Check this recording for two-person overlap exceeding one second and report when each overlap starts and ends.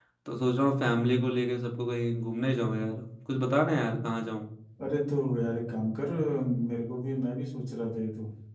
none

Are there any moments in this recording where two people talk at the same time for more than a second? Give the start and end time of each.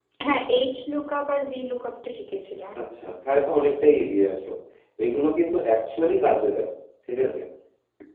none

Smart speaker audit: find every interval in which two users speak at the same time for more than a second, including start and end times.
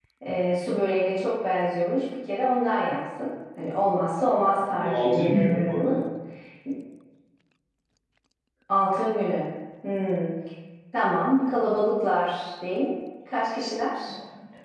4.5-6.0

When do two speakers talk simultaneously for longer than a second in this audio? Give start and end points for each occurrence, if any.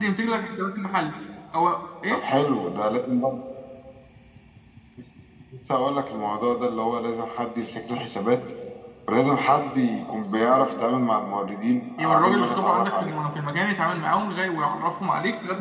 12.0-13.2

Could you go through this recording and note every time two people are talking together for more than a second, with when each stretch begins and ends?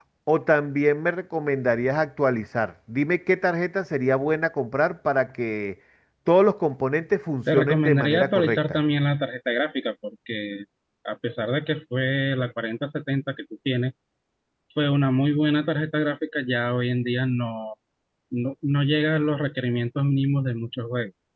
7.5-8.8

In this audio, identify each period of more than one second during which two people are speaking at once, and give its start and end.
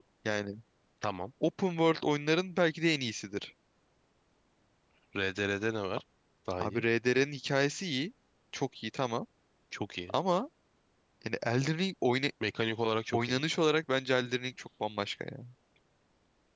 none

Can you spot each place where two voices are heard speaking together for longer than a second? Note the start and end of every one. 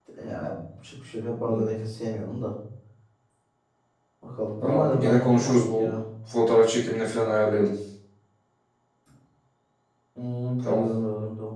4.6-5.9

